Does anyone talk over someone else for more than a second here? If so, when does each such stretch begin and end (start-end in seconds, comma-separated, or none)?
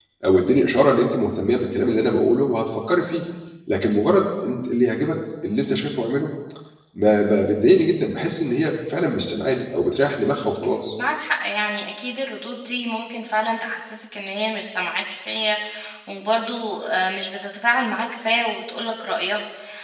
none